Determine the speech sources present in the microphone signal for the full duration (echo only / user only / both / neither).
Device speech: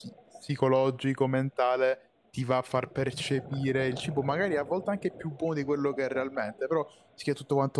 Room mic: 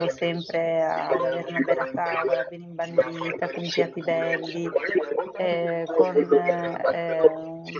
both